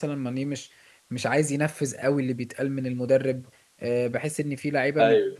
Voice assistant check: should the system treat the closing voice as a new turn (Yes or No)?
No